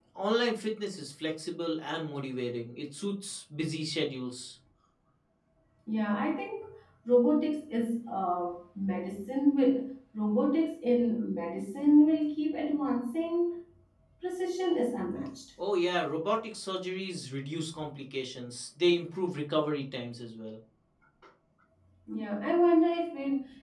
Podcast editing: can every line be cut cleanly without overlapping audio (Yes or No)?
Yes